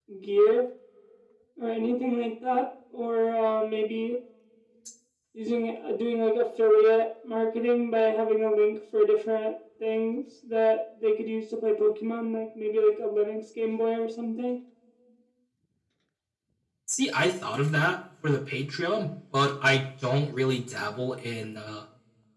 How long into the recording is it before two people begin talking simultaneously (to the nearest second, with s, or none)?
none